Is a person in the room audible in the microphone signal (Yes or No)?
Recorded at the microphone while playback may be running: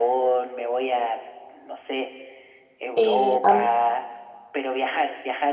Yes